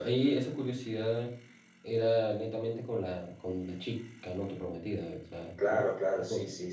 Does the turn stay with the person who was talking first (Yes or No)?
No